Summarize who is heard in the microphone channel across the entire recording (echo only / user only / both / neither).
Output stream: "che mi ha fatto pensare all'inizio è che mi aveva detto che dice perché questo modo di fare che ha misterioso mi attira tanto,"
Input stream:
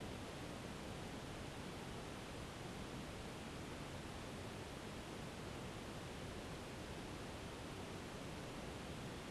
neither